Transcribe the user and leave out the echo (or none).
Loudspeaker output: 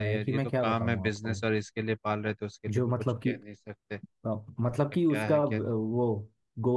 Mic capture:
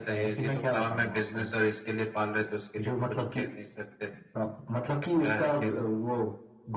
none